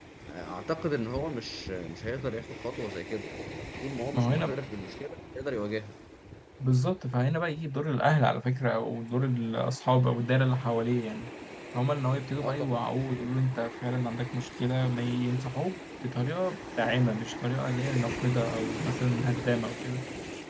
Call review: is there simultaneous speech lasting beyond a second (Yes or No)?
No